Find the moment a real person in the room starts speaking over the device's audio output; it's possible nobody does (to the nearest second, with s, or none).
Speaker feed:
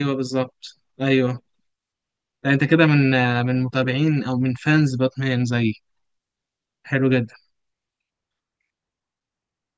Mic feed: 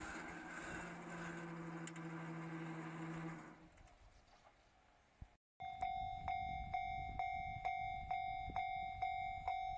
none